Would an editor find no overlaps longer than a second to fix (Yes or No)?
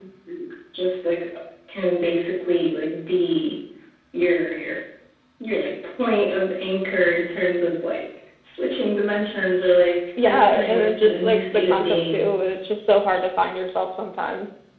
No